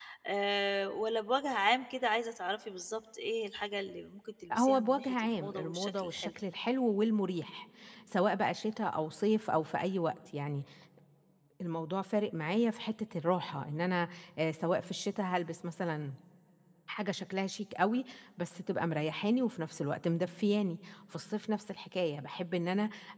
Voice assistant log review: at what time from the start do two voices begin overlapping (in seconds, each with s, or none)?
4.5 s